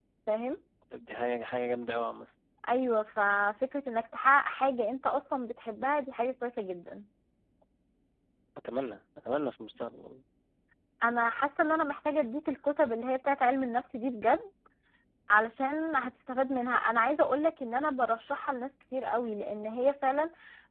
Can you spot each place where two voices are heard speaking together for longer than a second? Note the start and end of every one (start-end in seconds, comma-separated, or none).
none